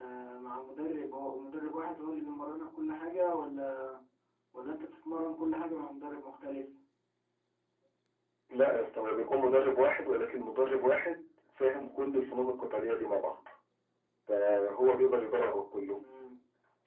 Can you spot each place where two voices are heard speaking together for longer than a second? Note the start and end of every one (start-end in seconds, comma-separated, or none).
none